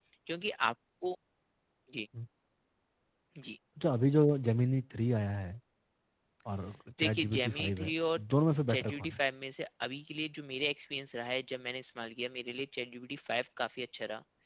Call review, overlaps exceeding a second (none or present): present